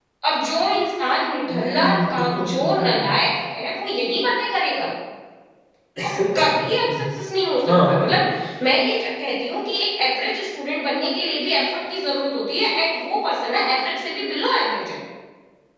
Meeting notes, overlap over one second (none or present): present